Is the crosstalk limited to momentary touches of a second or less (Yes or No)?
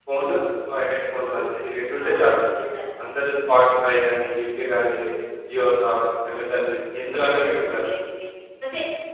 Yes